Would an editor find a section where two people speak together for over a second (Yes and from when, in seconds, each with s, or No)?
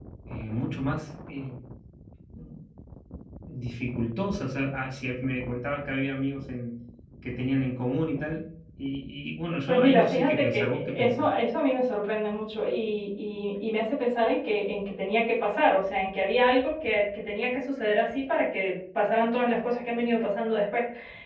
Yes, from 9.7 s